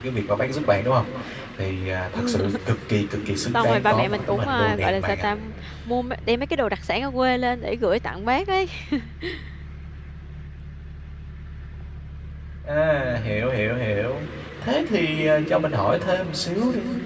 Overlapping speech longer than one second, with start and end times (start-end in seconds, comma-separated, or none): 3.5-5.3